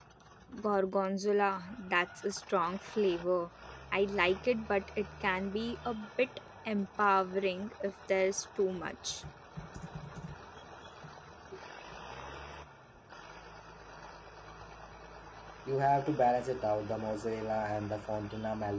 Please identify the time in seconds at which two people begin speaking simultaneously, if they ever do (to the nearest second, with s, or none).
none